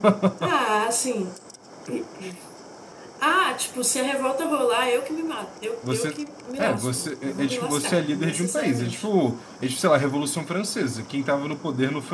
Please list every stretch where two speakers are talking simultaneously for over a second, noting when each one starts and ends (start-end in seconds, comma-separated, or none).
6.6-9.1